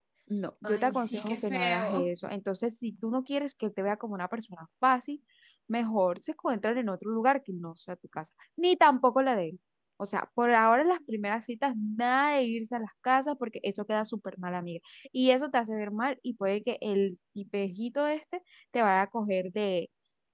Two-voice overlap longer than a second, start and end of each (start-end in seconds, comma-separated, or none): 0.6-2.1